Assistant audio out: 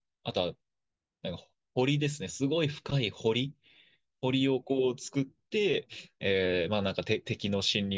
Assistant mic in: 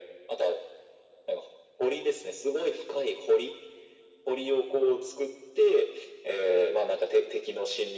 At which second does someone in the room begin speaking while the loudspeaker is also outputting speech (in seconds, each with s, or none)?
none